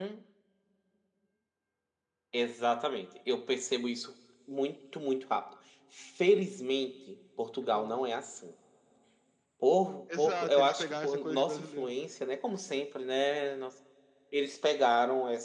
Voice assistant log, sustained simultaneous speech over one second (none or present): present